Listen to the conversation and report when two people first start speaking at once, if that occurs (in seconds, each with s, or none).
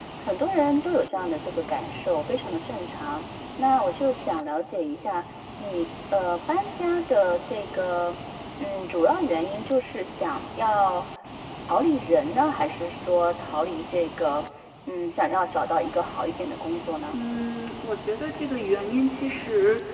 none